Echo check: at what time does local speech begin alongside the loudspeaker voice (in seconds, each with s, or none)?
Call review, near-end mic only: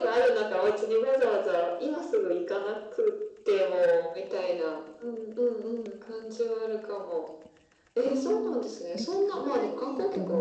8.0 s